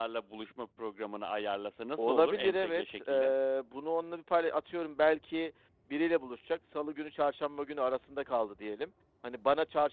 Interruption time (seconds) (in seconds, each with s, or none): 2.0 s